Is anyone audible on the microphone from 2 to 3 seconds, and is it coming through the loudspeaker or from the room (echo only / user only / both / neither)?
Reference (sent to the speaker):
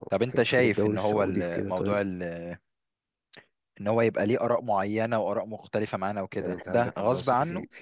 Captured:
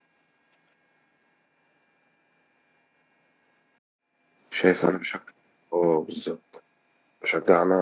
neither